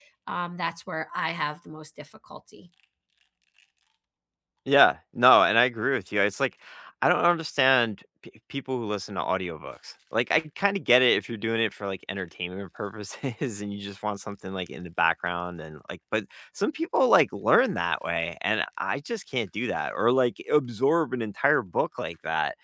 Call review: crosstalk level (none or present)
none